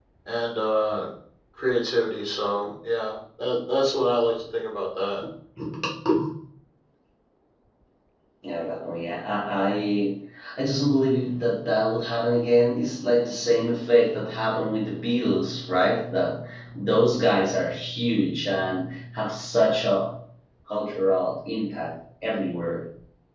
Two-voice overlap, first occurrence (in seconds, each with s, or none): none